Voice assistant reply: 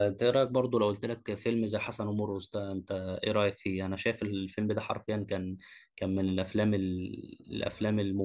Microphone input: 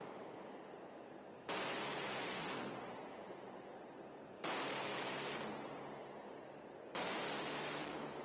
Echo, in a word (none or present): none